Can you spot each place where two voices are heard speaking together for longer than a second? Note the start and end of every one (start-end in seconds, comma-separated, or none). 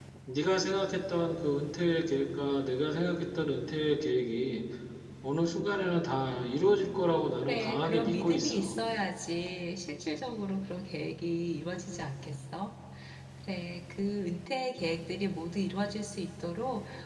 7.4-8.8